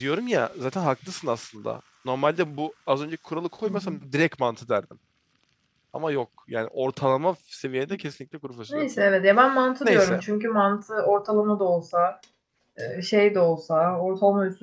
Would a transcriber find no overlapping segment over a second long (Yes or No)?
Yes